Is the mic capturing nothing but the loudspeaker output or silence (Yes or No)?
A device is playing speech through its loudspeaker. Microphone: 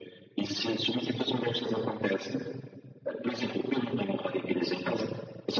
Yes